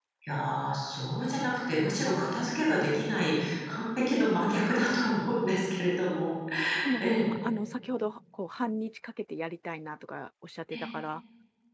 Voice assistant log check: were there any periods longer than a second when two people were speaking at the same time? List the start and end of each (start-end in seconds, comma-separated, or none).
none